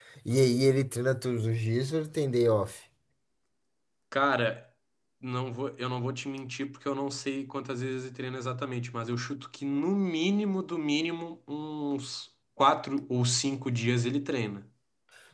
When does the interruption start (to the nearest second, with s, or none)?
none